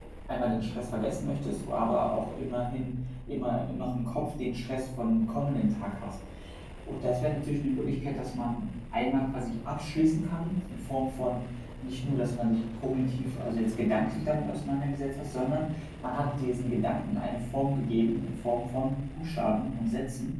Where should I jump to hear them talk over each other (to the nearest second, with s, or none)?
none